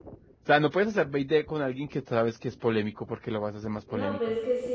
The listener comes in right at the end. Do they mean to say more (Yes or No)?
Yes